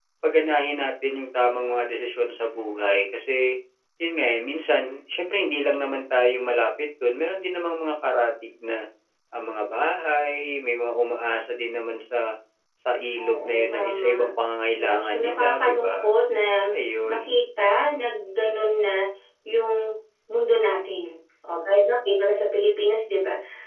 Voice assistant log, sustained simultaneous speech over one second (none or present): present